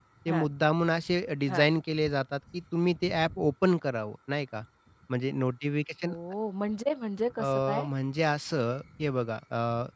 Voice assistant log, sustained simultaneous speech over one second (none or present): none